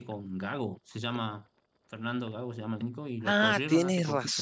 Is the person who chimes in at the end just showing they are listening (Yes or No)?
No